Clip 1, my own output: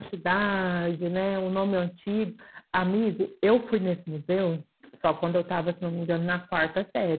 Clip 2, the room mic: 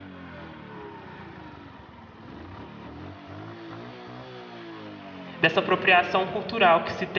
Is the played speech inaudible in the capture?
Yes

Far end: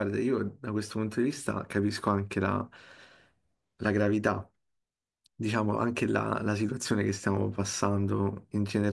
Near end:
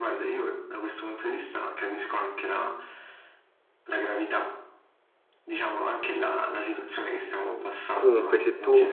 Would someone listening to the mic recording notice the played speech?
Yes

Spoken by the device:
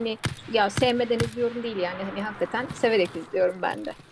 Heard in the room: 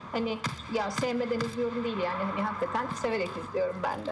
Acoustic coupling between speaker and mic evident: Yes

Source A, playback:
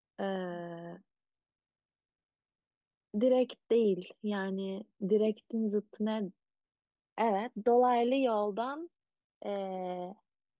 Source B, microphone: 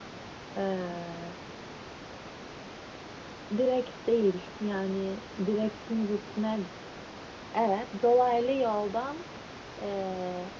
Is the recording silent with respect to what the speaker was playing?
No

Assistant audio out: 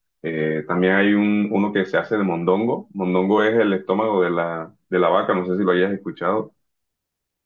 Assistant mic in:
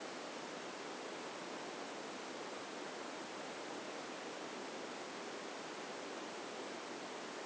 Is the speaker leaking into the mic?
No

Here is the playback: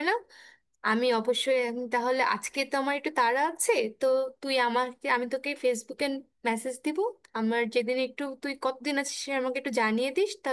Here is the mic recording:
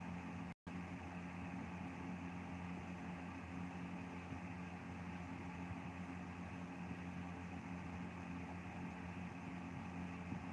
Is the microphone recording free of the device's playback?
Yes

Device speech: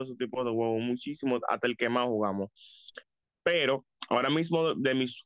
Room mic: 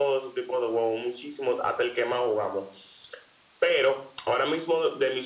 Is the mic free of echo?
No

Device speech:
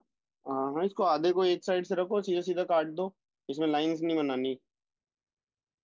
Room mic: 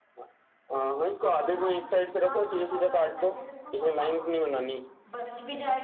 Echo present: Yes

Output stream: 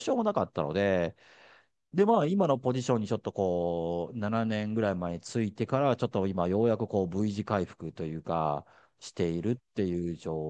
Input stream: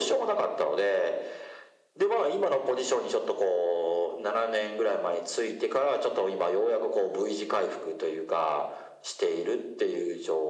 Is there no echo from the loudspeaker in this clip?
No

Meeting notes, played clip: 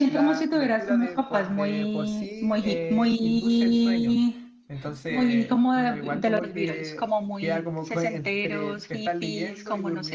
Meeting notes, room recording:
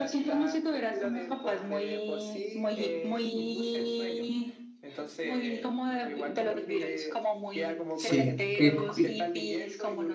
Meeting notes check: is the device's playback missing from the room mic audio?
No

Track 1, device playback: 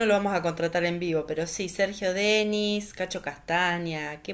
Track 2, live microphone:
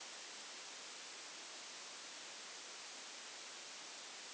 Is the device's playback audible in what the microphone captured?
No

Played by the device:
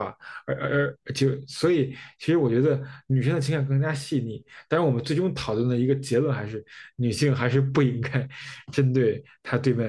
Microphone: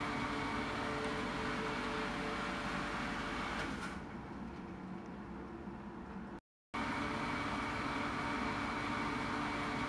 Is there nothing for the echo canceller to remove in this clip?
Yes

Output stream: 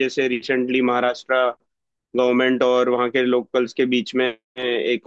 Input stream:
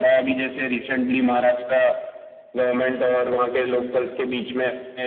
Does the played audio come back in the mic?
Yes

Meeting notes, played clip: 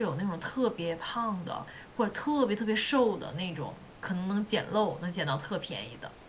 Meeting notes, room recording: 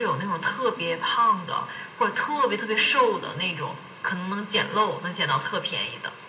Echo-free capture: No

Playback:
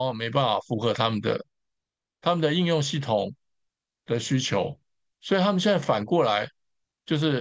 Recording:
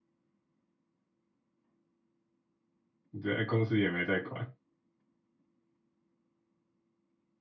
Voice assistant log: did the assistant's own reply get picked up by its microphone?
No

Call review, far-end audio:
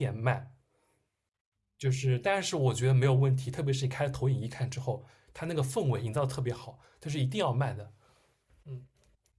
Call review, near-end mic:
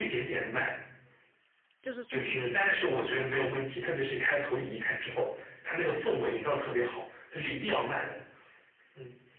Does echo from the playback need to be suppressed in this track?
Yes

